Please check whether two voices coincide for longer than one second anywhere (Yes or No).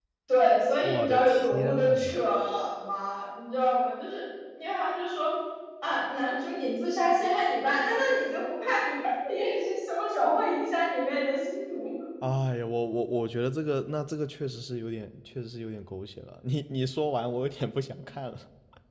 Yes